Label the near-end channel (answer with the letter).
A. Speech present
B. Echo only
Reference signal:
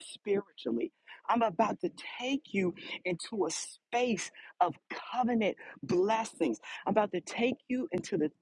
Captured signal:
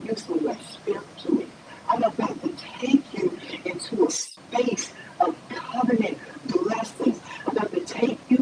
B